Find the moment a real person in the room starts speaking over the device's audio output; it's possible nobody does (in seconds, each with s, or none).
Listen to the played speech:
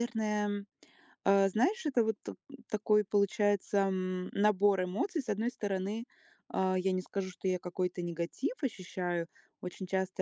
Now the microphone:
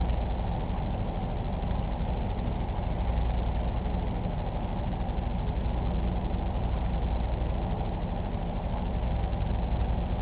none